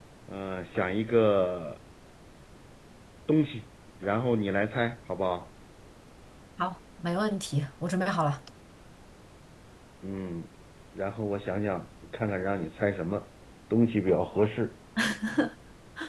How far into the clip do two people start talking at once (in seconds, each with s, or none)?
none